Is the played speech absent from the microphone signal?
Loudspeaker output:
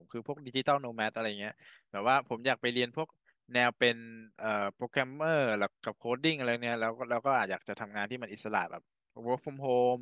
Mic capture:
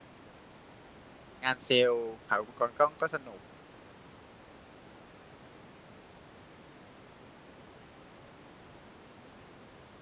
Yes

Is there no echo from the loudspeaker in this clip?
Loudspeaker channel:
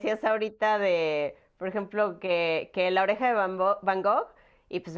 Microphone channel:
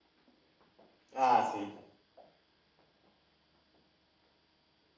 Yes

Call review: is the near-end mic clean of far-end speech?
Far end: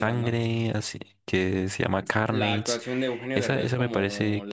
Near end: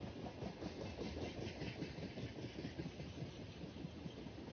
Yes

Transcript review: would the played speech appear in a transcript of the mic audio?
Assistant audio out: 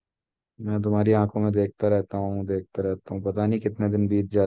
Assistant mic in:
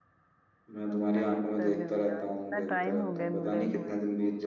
Yes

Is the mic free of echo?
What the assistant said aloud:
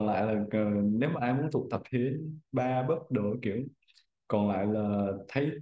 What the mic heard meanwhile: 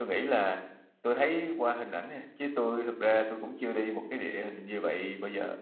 Yes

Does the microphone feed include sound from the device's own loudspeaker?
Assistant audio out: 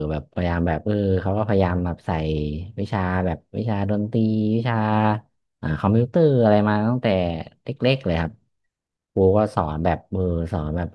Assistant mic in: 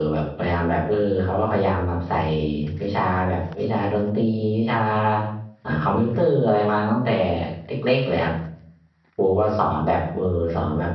Yes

